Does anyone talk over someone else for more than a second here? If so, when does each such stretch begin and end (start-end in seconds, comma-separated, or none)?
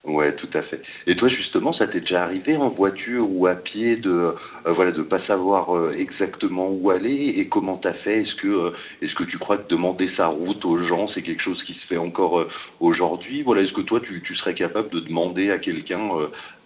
none